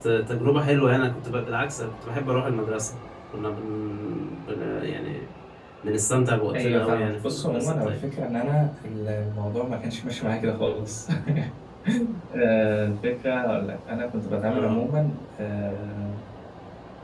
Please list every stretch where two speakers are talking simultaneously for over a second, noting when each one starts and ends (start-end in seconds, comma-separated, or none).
6.5-8.0